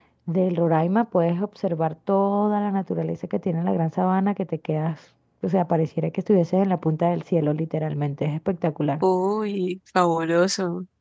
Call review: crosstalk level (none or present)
none